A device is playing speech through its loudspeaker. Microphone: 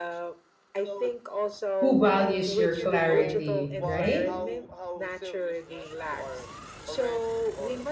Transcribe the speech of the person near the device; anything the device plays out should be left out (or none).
who values your clarity right